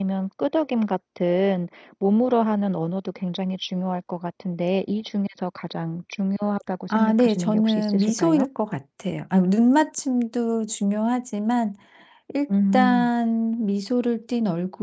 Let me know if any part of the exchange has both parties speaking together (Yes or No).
Yes